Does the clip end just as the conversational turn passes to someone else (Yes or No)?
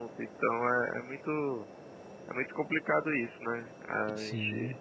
No